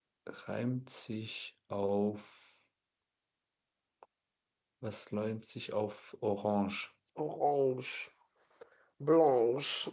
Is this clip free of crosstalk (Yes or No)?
Yes